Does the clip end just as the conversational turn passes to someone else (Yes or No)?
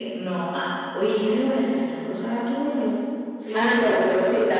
Yes